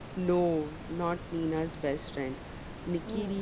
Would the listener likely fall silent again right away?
Yes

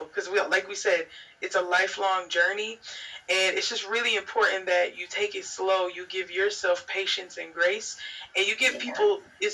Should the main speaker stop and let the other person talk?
No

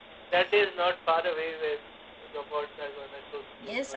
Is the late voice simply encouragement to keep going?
No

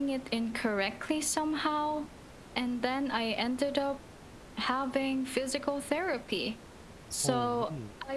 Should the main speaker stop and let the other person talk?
No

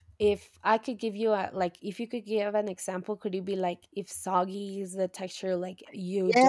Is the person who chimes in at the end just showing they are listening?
No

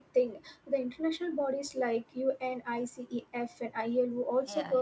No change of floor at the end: Yes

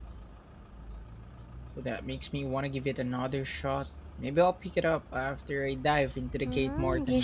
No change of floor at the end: No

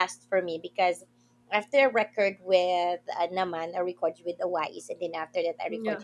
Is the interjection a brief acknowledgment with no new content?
Yes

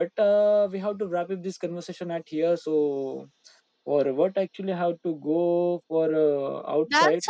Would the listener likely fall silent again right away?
No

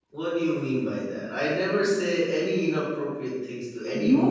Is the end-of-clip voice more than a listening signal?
Yes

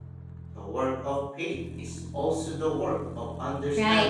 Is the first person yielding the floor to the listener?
Yes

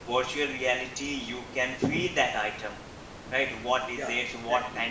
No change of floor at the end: Yes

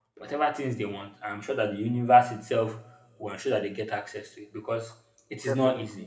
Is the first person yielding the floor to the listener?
No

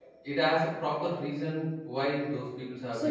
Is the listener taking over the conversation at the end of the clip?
Yes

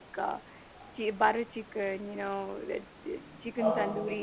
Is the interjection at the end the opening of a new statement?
No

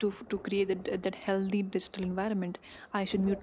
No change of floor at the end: Yes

